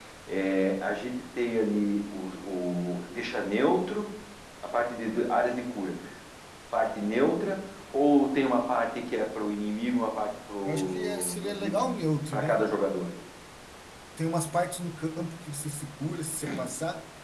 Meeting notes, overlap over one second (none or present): present